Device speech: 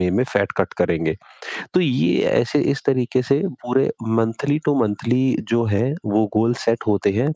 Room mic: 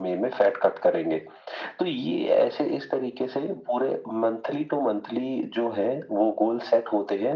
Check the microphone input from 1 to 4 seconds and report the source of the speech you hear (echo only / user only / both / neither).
echo only